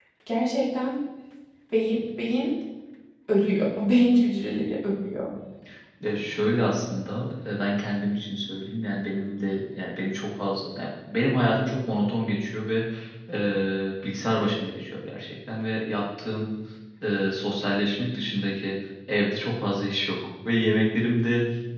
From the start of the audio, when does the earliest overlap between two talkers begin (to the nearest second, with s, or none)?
none